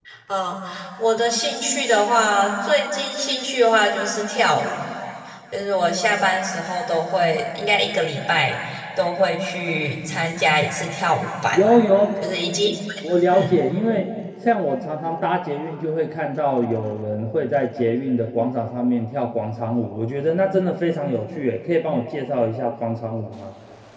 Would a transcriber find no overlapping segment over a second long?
Yes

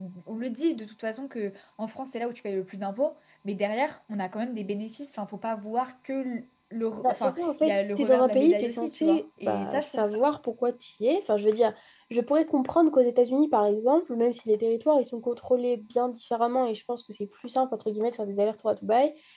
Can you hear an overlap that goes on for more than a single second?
Yes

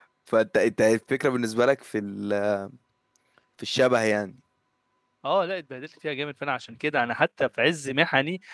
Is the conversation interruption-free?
Yes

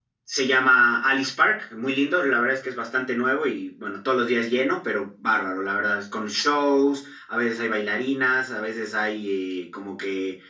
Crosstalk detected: No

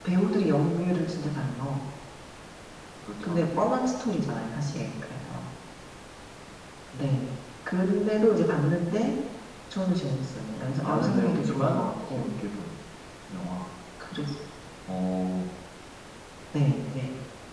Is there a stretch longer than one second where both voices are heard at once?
Yes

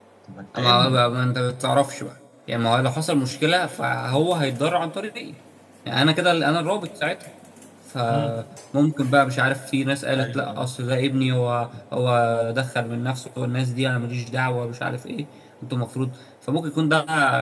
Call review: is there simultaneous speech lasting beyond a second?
No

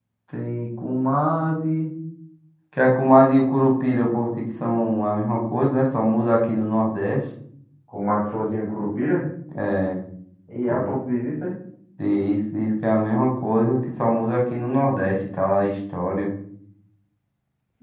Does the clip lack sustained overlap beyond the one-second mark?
Yes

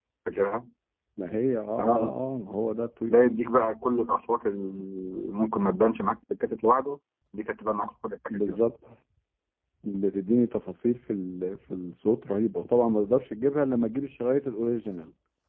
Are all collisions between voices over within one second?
Yes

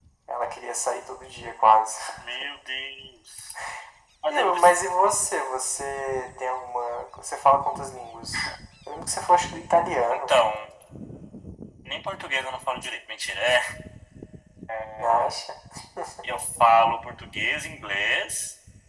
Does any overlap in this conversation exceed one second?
No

